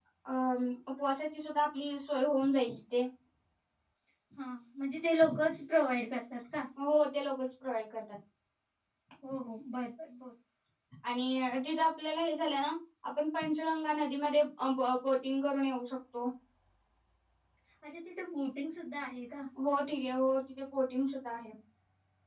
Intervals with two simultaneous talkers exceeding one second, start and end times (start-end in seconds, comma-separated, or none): none